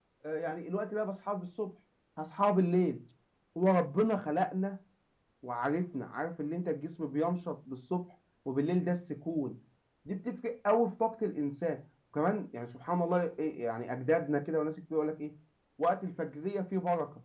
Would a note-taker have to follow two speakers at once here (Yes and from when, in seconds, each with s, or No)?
No